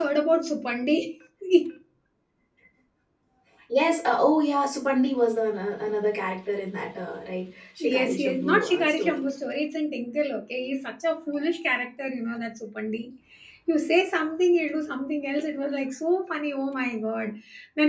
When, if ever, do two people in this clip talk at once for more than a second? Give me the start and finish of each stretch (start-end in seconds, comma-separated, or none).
7.8-9.2